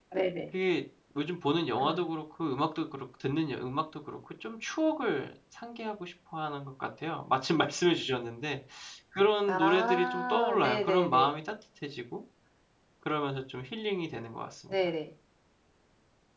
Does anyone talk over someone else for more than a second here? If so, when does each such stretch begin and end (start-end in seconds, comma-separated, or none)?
9.5-11.4